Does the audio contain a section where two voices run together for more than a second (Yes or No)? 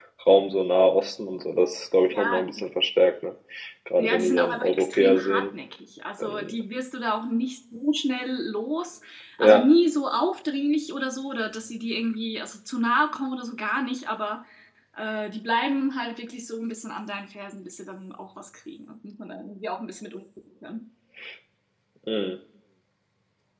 Yes